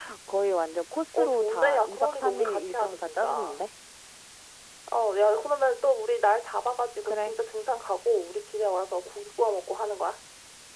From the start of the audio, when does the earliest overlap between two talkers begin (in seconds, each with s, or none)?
1.1 s